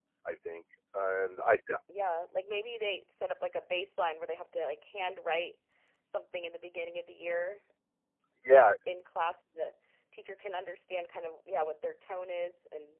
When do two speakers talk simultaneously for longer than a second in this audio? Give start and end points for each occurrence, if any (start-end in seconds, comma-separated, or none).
none